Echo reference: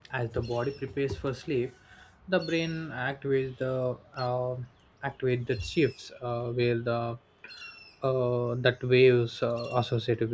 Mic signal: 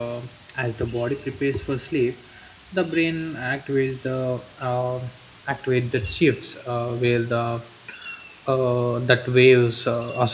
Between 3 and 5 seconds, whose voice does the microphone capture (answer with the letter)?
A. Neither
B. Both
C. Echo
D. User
C